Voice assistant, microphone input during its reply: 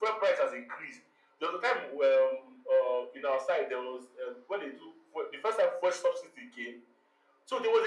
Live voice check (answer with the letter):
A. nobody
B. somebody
A